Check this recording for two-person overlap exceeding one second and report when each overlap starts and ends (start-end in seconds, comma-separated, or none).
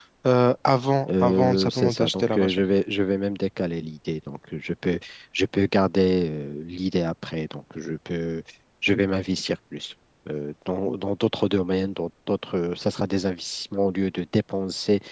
1.2-2.6